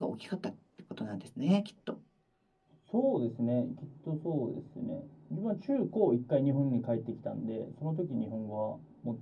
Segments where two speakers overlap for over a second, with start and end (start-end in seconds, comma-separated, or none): none